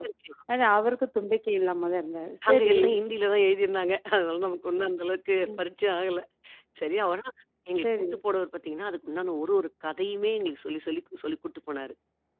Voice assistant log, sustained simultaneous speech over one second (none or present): none